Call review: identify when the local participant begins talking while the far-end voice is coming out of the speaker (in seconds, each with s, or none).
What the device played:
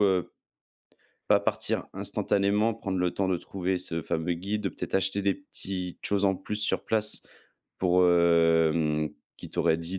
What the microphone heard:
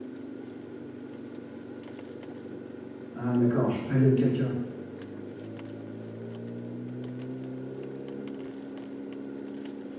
3.1 s